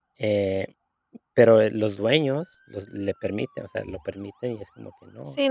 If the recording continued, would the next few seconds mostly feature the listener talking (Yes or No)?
Yes